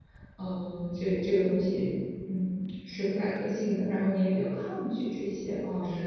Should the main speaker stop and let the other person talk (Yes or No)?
Yes